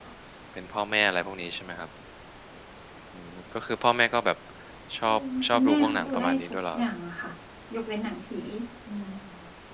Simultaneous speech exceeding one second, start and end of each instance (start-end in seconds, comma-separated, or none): 5.0-6.8